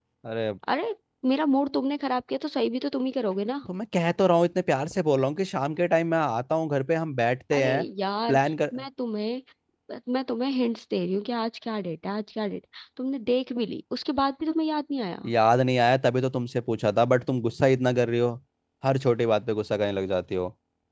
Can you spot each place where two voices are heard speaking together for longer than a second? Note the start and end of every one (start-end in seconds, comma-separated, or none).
none